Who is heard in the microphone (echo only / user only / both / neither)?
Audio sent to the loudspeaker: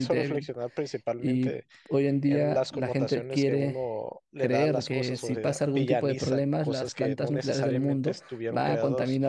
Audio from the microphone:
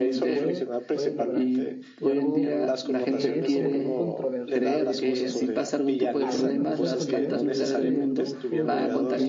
both